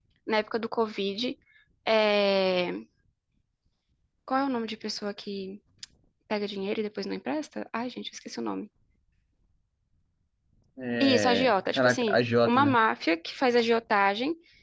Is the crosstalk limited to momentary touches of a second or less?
No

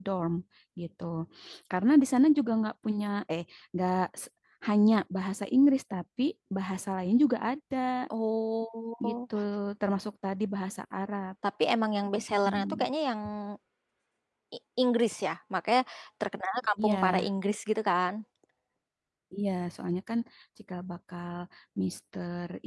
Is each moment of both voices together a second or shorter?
Yes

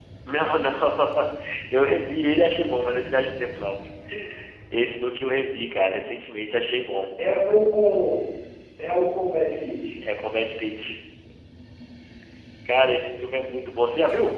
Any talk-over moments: No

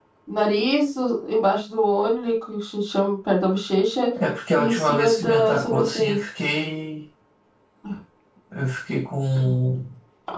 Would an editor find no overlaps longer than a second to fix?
No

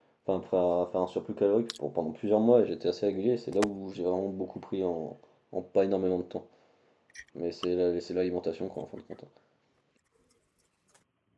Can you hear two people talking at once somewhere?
No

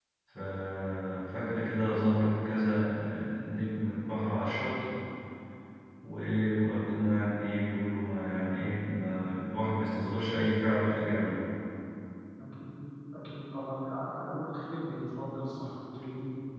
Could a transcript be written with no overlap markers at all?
Yes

